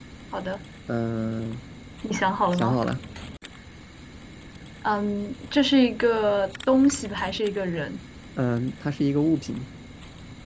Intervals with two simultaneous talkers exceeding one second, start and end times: none

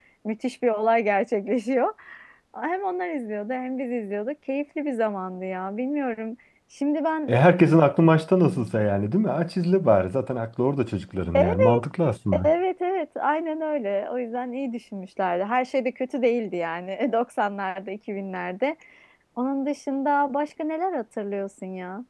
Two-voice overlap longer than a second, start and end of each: none

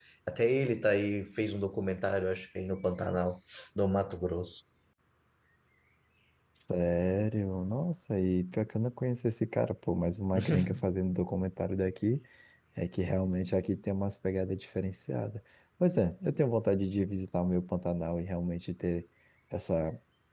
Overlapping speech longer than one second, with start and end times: none

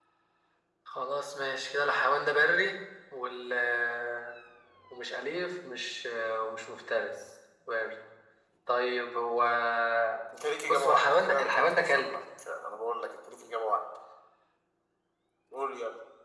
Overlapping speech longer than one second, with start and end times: 10.7-12.1

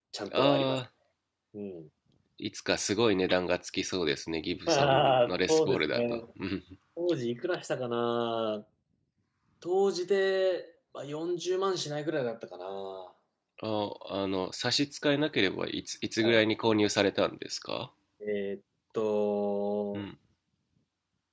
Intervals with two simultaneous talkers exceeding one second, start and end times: 4.7-6.2

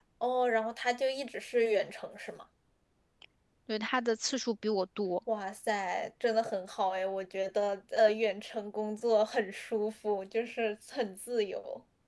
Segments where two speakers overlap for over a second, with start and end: none

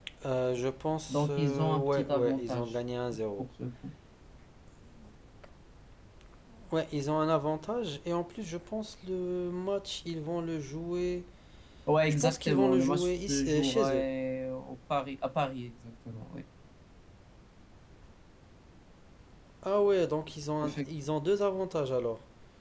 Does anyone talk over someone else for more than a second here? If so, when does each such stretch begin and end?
1.1-2.7, 12.1-14.1

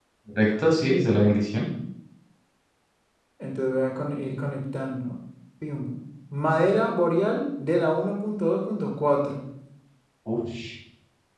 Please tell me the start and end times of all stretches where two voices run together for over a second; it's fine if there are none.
none

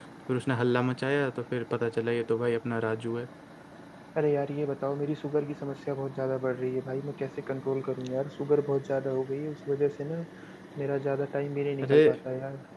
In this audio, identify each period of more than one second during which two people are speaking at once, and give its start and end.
none

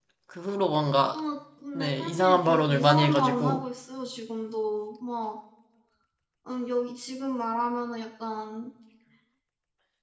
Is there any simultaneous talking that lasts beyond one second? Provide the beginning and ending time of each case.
1.7-3.6

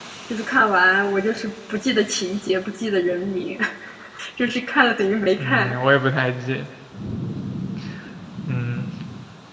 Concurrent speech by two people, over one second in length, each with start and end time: none

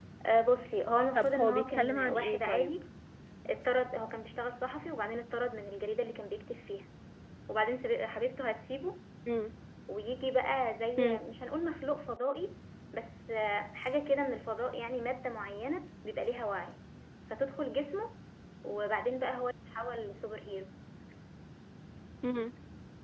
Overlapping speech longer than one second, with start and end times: 1.1-2.7

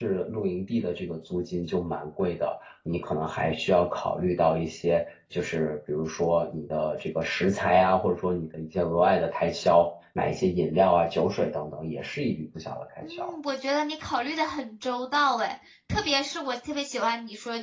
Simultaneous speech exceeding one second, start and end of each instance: none

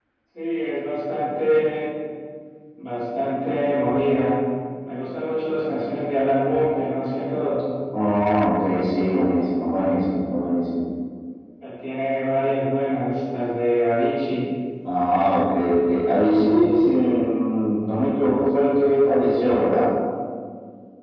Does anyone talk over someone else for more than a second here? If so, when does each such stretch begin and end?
none

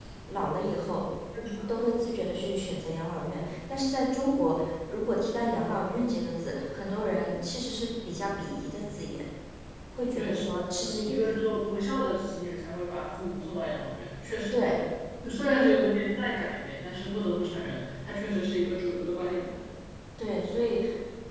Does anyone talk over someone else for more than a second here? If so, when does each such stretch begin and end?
10.1-11.4

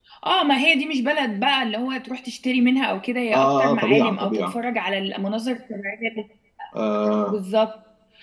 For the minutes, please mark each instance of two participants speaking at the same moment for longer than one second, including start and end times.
3.3-4.5

